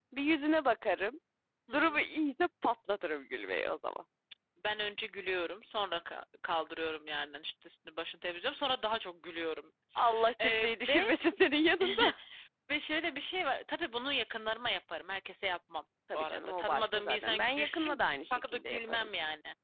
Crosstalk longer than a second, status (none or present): present